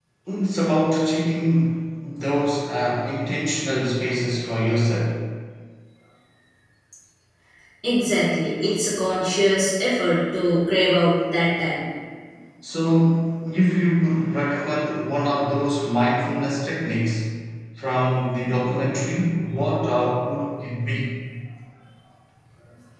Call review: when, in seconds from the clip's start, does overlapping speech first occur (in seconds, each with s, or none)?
none